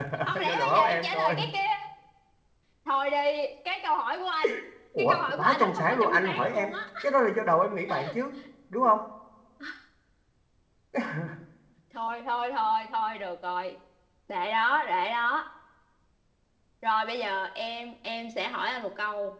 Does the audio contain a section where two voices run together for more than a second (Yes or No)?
Yes